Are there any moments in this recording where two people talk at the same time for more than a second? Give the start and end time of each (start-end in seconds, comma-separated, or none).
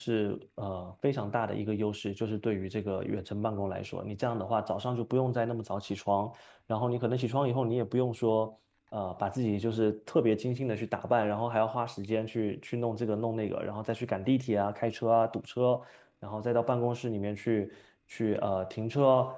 none